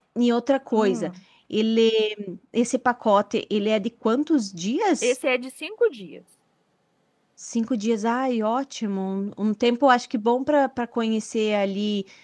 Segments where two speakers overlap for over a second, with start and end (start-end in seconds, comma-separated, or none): none